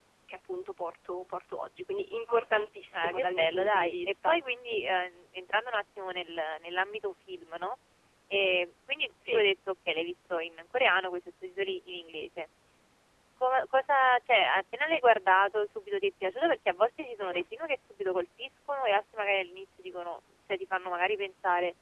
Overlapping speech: Yes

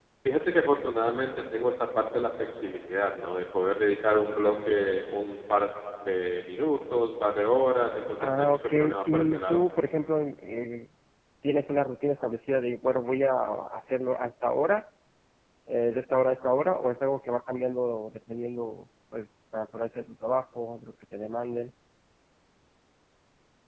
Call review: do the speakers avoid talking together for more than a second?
No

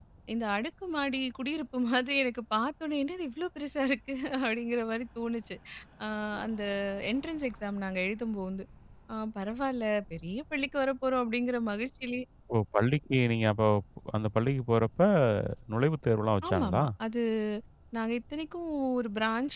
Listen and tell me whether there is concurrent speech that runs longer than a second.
No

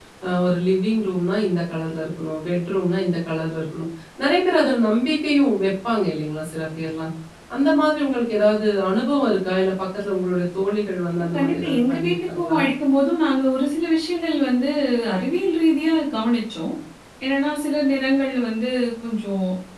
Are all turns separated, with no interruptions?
No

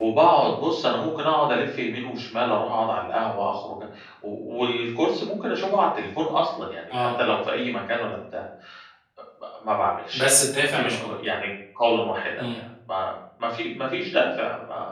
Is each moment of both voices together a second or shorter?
Yes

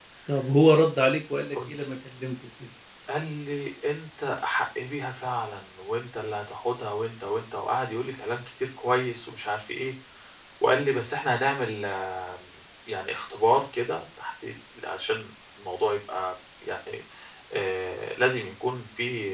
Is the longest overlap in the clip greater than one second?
No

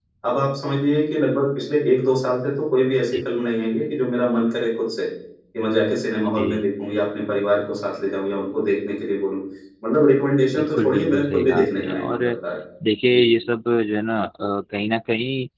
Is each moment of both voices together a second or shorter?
No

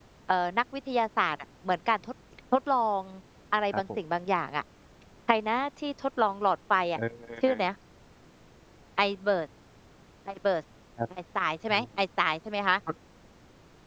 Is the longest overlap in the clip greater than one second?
No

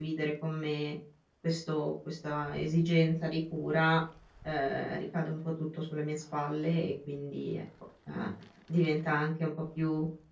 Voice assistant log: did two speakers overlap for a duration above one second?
No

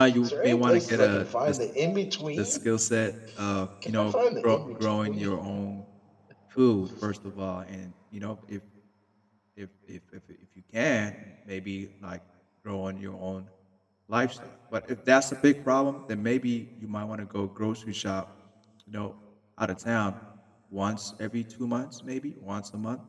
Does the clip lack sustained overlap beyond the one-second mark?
No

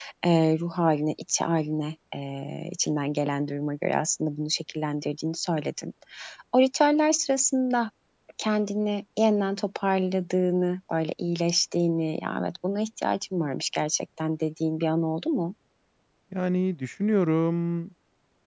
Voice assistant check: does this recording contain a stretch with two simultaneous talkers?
No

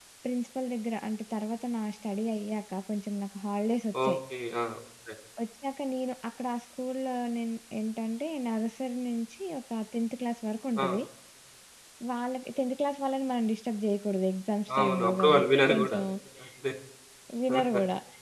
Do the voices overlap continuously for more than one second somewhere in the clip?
Yes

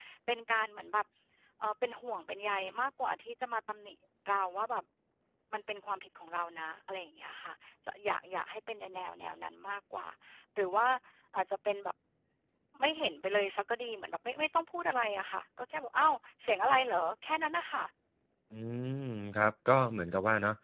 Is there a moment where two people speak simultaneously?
No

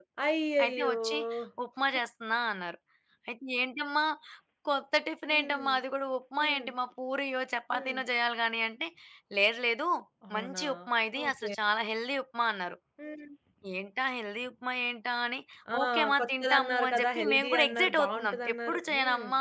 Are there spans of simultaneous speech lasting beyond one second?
Yes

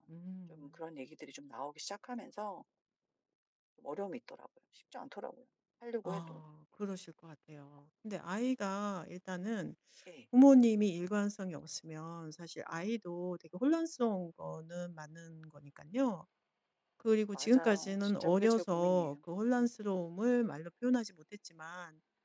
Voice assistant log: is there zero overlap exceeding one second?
No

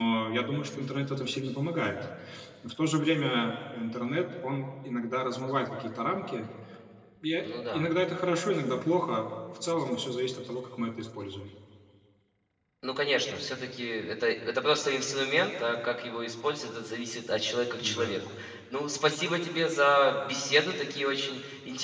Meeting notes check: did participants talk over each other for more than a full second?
No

